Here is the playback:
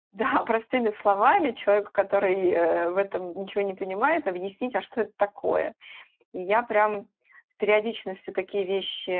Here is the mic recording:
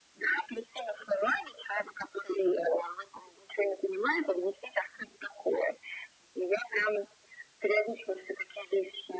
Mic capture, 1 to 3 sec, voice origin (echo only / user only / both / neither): echo only